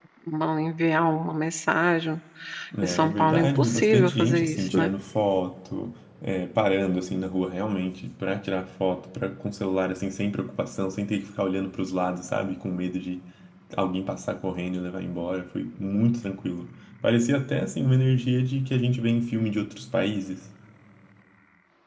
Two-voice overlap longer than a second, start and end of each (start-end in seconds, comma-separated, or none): 2.8-4.9